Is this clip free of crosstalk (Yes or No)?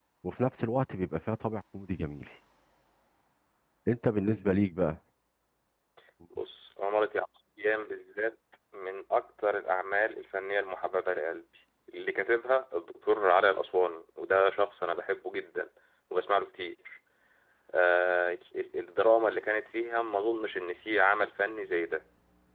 Yes